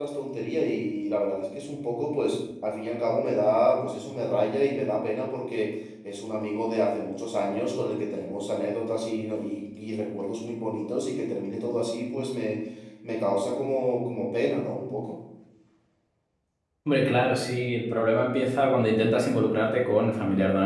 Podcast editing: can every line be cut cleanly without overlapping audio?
Yes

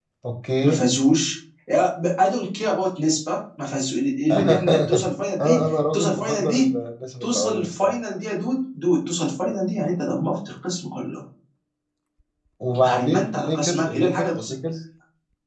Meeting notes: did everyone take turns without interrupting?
No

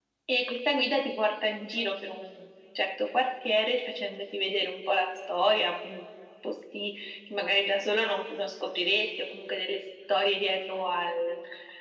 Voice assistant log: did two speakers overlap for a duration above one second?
No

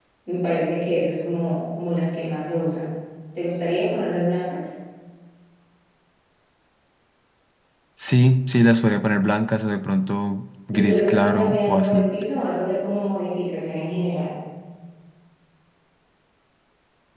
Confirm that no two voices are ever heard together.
No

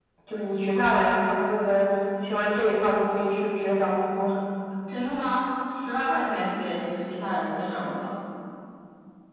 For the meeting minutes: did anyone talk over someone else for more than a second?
No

